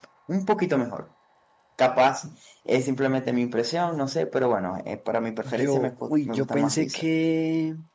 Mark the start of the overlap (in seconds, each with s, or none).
5.5 s